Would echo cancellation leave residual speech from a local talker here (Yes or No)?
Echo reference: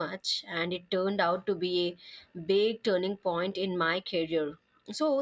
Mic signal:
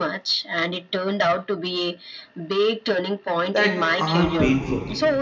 Yes